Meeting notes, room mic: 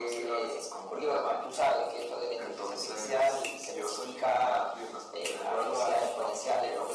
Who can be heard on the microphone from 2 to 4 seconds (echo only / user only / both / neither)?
echo only